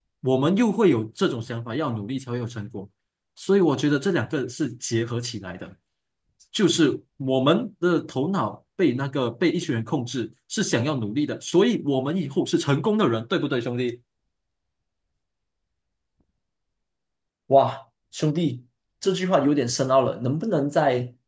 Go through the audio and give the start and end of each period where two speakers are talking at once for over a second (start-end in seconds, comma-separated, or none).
none